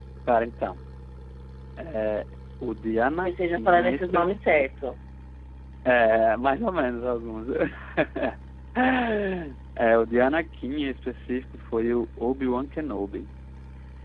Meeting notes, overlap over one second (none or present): present